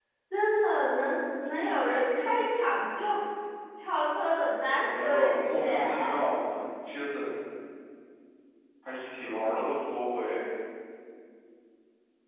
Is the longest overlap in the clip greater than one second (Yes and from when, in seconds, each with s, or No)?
Yes, from 4.8 s